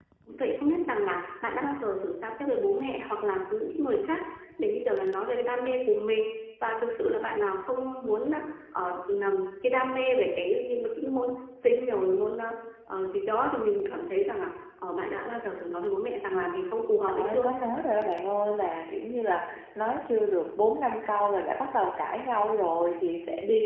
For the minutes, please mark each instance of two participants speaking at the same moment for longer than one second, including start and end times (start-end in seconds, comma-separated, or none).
none